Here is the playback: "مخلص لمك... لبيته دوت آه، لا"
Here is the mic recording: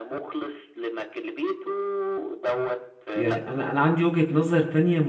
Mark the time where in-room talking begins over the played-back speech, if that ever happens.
3.1 s

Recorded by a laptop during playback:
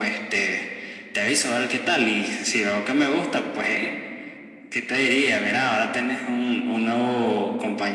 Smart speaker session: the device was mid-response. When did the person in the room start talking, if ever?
none

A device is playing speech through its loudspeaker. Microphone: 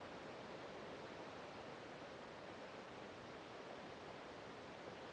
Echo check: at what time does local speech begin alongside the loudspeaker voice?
none

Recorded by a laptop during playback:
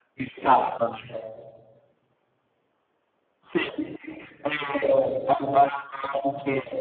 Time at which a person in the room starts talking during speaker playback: none

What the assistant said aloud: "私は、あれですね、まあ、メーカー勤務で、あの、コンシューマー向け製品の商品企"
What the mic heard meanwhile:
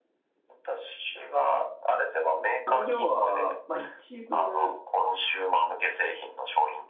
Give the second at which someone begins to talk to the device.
2.6 s

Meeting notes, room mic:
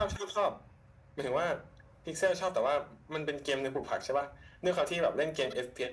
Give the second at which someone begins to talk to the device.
none

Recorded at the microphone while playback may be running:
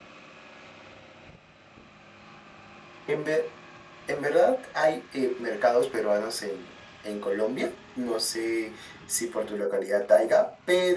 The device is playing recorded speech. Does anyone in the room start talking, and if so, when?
none

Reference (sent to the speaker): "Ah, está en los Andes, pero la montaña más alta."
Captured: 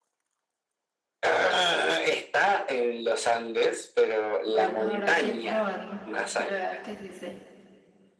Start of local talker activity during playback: 4.5 s

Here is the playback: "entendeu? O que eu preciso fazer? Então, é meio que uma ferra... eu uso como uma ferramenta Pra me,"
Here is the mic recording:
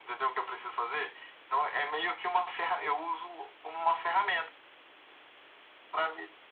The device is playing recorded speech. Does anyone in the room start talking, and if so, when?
none

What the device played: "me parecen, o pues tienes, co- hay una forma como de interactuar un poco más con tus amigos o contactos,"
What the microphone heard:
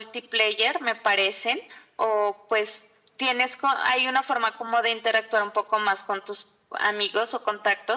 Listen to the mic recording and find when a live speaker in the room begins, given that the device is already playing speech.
none

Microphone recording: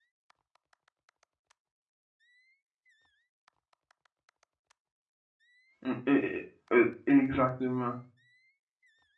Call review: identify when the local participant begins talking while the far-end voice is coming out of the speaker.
5.8 s

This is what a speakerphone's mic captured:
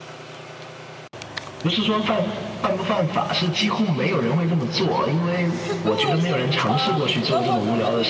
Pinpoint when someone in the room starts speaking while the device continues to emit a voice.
5.6 s

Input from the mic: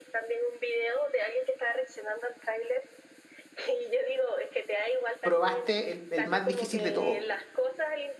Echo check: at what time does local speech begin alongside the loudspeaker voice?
5.2 s

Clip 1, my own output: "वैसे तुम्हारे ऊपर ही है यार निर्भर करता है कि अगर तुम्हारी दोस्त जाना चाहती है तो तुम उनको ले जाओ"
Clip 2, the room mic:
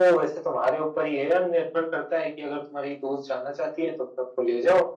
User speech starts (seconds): none

